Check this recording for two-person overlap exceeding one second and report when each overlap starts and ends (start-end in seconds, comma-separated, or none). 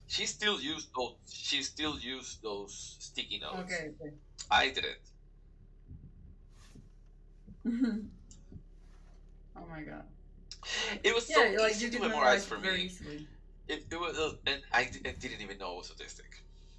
11.3-12.9